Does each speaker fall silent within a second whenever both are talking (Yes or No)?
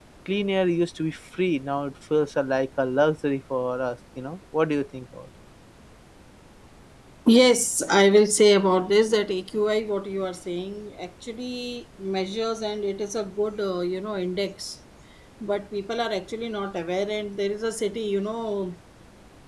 Yes